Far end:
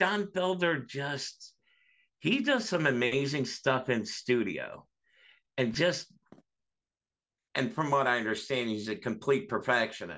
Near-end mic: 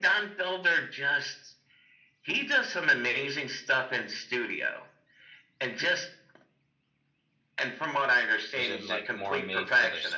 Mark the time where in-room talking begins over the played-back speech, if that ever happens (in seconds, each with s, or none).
8.5 s